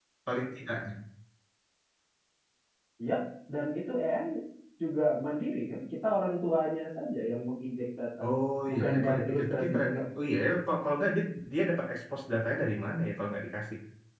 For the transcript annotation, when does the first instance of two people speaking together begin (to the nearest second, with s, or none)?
9 s